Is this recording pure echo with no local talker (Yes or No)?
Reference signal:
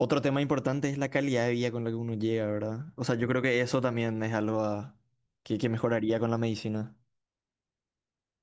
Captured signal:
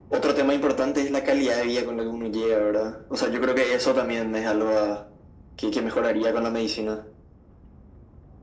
Yes